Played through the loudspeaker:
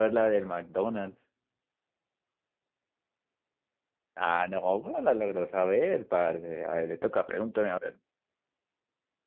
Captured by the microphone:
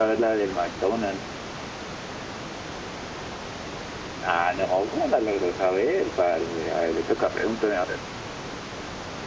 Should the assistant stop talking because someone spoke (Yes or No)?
No